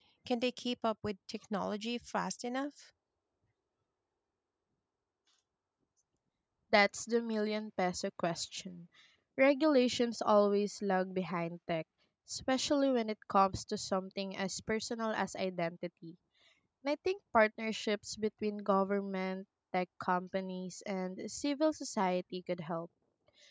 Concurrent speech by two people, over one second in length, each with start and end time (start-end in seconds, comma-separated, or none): none